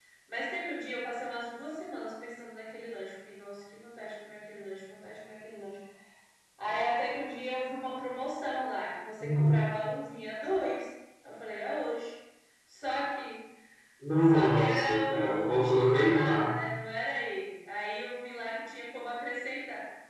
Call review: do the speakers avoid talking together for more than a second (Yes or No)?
No